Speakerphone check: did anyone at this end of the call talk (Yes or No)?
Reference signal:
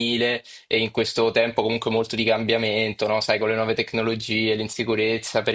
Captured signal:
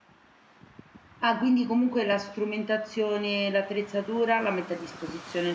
Yes